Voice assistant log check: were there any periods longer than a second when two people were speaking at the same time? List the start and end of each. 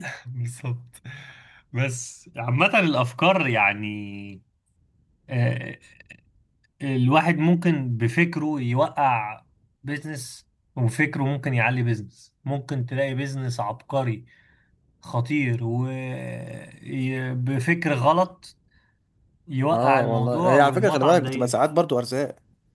19.7-21.6

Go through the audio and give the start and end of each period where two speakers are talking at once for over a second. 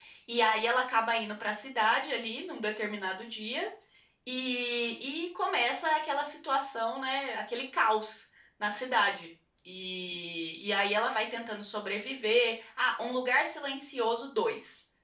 none

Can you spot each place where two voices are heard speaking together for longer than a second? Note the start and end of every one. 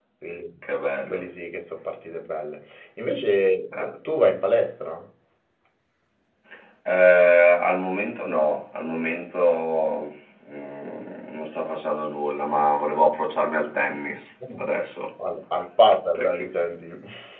none

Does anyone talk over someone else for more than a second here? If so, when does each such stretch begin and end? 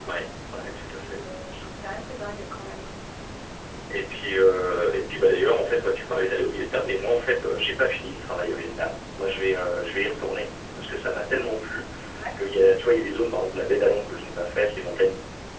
none

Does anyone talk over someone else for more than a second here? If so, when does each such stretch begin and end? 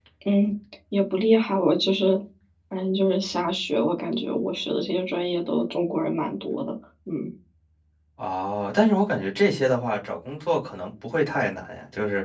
none

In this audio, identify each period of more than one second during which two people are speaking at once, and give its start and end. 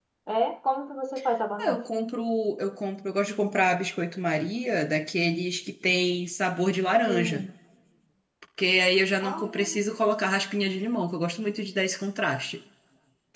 none

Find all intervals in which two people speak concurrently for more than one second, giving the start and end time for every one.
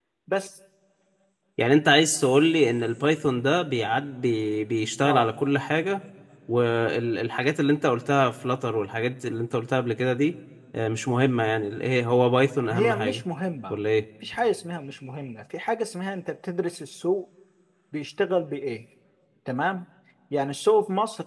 none

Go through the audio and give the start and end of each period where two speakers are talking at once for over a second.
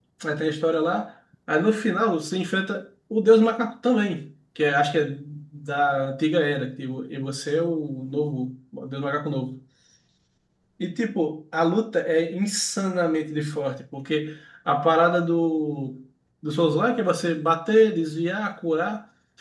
none

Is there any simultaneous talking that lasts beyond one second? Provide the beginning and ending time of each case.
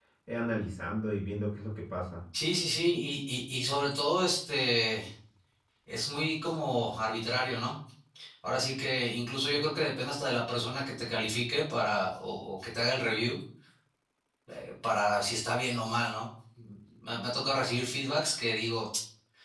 none

